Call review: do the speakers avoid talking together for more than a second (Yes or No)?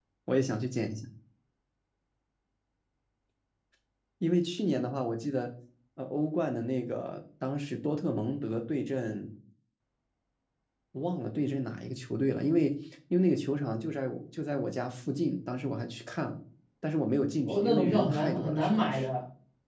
No